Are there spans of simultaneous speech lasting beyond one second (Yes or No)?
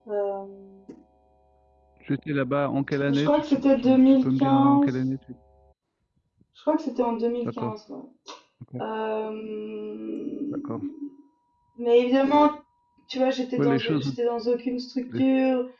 Yes